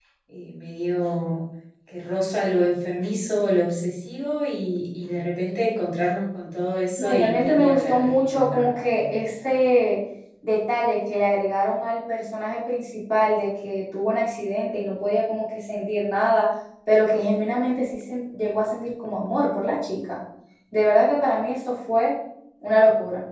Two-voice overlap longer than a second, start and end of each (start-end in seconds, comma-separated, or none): 7.0-9.6